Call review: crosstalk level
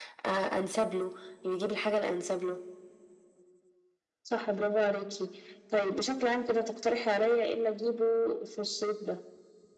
none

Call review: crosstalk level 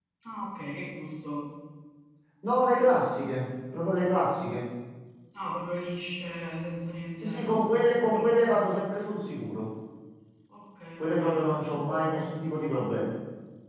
present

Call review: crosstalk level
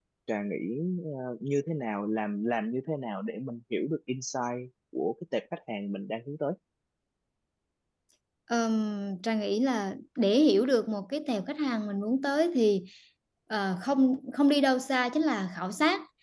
none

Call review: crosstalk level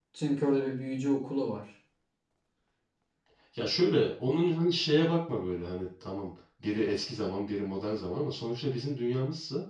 none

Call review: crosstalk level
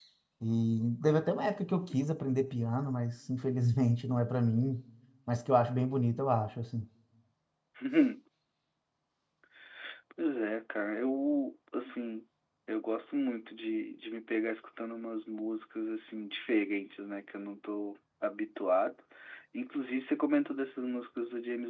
none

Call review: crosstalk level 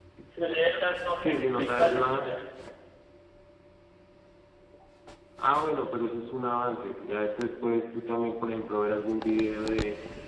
present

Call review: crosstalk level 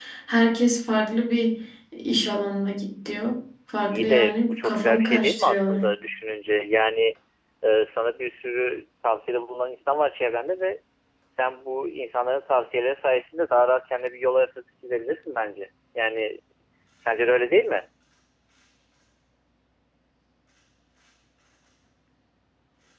present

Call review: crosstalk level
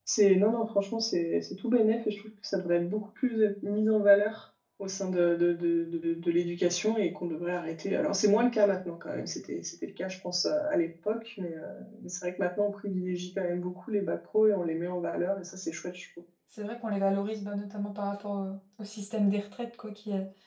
none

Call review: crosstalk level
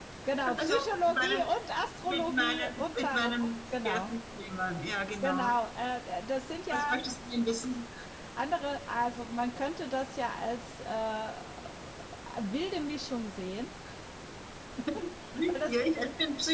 present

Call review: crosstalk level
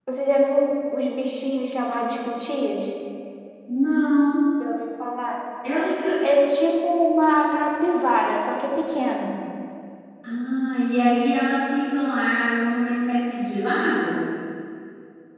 none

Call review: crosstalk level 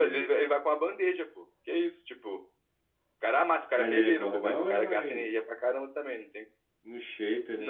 present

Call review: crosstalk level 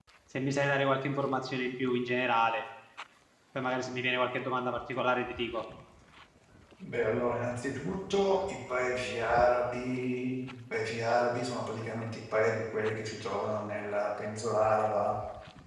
none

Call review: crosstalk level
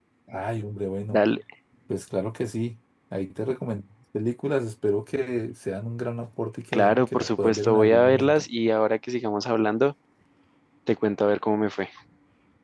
present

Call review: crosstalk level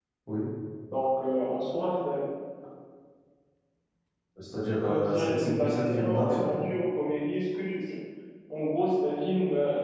present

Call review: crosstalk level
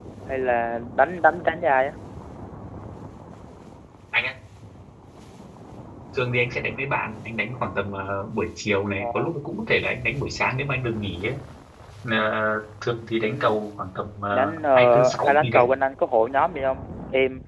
present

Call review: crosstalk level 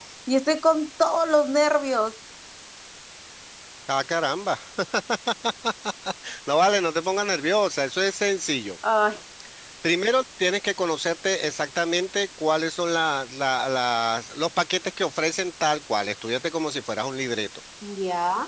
none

